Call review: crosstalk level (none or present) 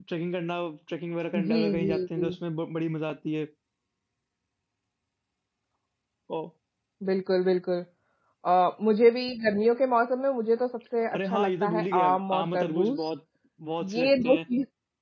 present